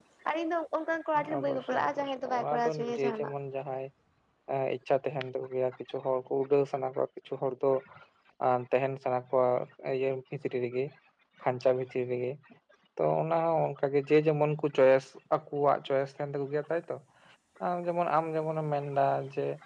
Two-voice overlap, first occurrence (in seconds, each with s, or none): 1.2 s